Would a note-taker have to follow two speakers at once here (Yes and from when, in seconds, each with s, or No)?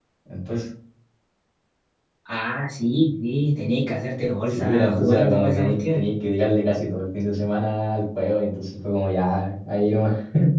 Yes, from 4.5 s